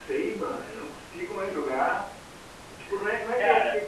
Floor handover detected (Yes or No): No